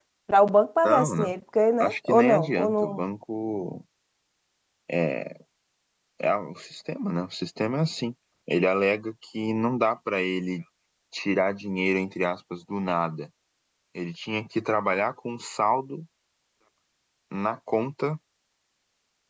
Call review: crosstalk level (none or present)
present